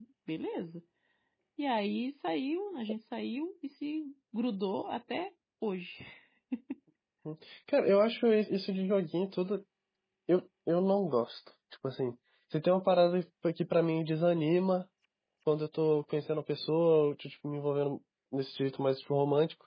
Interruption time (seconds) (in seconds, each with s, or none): none